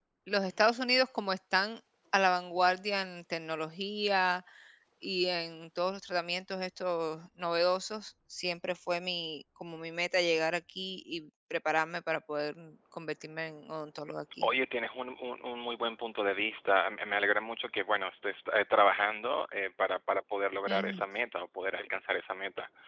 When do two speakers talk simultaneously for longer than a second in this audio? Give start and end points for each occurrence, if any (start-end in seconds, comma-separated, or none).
none